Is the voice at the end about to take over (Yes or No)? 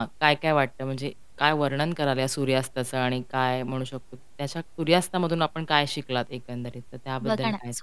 Yes